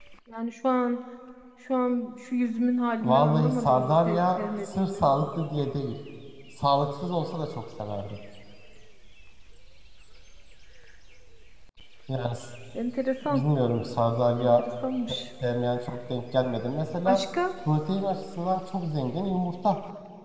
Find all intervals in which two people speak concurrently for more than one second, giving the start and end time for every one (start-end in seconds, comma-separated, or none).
3.0-5.1